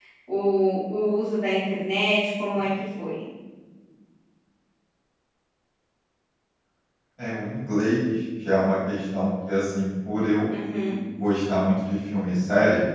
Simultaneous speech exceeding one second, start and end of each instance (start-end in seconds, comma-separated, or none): none